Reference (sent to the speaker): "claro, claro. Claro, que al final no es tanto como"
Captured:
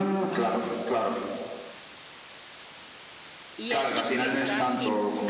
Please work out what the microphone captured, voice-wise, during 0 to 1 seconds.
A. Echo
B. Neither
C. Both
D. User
A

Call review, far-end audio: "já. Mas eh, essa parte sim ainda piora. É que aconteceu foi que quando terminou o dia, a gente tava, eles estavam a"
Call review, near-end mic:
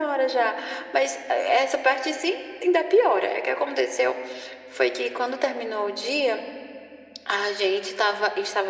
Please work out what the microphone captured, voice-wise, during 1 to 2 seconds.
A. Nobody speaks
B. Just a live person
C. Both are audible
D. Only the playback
D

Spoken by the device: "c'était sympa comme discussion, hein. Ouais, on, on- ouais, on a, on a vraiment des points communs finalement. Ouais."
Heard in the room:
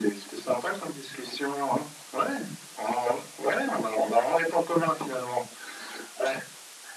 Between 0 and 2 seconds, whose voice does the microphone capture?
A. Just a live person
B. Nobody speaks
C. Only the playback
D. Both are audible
C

